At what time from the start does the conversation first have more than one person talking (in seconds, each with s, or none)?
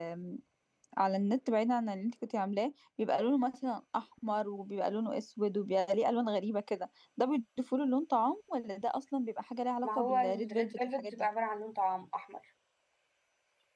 9.8 s